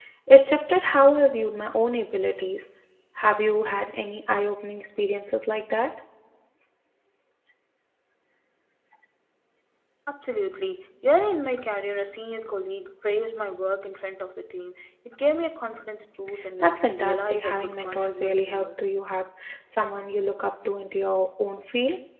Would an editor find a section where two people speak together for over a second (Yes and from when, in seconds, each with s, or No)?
Yes, from 16.6 s